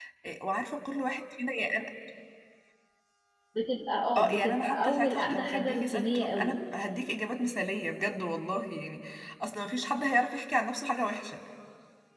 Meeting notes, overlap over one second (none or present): present